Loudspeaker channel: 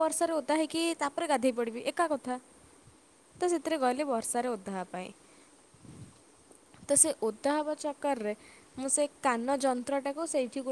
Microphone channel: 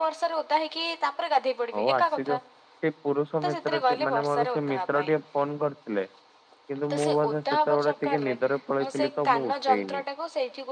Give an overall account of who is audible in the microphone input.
both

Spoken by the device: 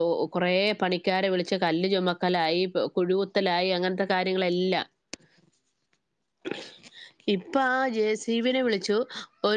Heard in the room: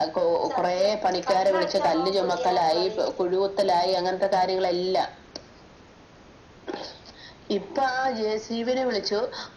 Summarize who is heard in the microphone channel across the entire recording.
both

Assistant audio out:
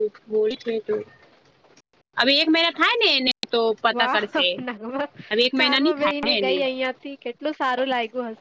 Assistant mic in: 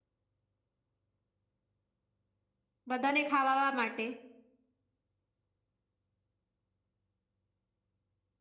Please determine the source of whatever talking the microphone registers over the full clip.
user only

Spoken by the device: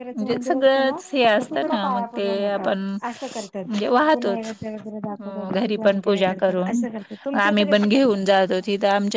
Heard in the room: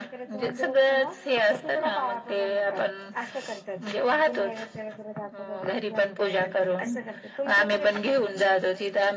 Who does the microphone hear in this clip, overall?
echo only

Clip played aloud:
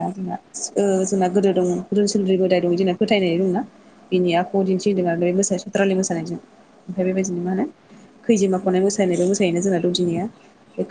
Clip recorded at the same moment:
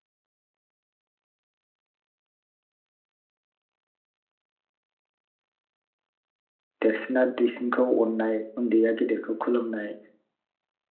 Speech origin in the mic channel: user only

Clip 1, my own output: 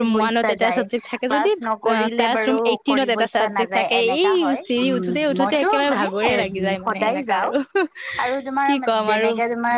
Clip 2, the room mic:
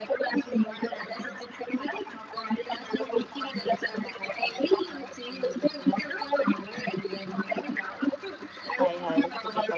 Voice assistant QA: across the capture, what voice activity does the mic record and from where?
both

